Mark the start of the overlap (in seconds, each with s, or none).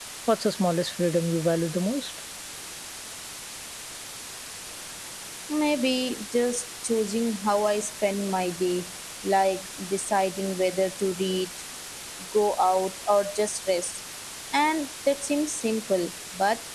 none